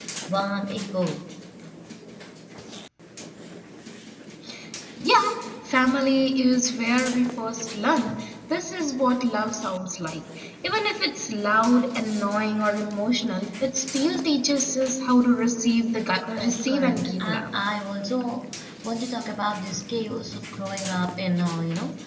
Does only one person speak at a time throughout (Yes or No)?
No